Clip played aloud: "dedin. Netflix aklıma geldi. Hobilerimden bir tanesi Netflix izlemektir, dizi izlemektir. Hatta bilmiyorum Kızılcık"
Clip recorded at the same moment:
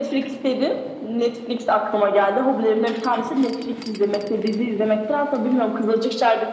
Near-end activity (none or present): none